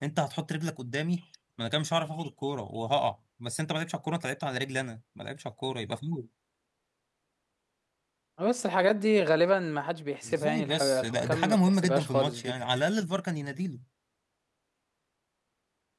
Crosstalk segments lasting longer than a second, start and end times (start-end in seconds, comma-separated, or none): 10.2-12.5